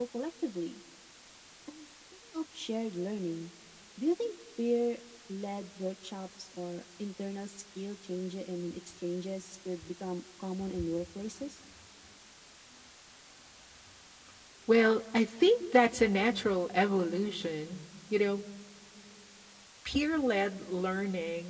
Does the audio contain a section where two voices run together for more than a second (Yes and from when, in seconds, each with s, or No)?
No